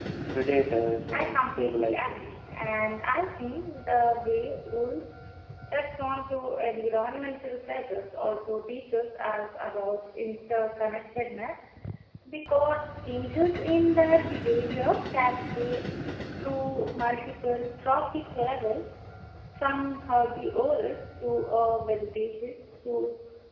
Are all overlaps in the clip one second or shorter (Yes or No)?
No